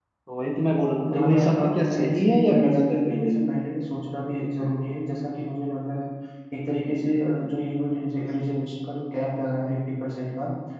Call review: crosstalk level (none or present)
present